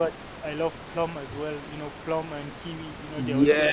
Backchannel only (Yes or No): No